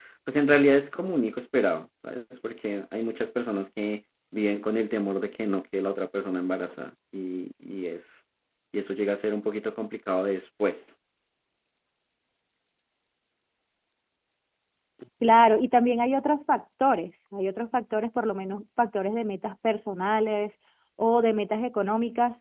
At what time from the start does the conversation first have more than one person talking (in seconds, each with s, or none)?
none